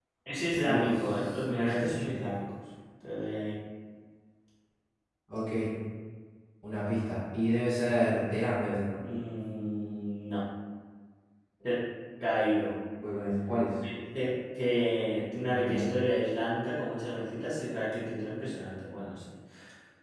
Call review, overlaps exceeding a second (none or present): present